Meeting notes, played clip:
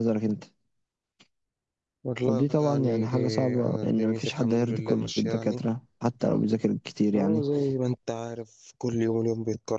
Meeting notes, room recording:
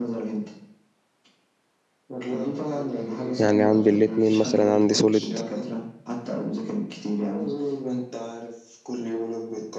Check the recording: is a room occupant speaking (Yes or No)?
Yes